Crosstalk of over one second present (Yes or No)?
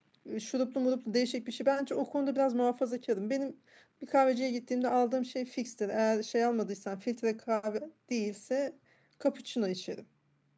No